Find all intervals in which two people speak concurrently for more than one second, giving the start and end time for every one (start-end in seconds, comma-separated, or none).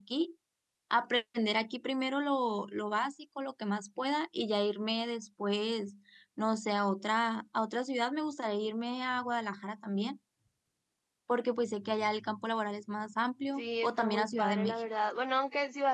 13.6-14.9